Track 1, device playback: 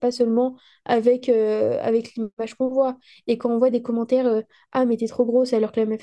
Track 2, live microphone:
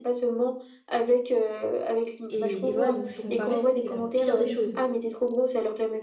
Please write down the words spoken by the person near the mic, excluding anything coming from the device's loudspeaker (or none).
et, et voilà, donc se comparer, c'est la pire des choses.